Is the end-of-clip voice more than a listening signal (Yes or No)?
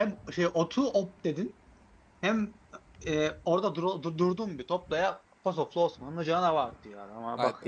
Yes